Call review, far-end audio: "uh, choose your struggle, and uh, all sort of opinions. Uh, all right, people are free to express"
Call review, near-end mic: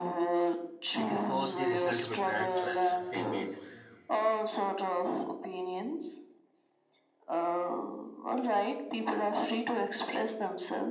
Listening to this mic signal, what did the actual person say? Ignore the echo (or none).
It is not the result of a bad choice they made.